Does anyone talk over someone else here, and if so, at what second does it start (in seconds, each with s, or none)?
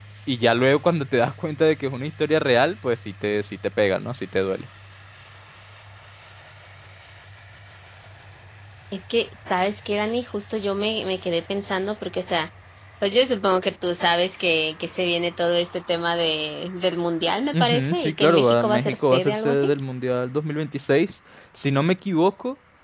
17.5 s